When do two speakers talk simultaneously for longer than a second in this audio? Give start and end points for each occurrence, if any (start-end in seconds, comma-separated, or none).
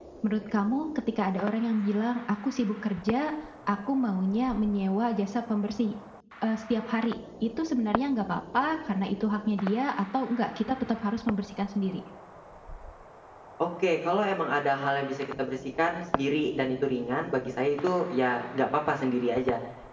none